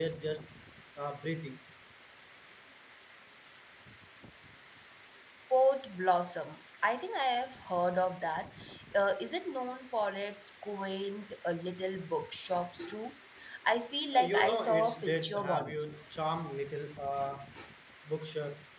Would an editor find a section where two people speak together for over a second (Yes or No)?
Yes